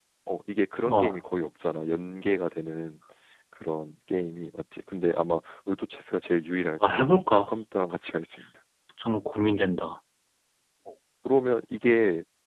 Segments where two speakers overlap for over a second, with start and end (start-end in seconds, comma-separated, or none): none